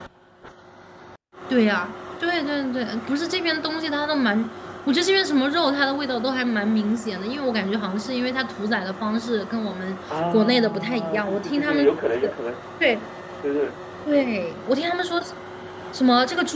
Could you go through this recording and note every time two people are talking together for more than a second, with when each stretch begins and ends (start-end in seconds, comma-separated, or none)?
10.3-11.8